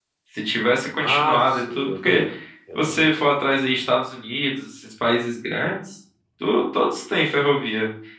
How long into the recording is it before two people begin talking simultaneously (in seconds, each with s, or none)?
1.0 s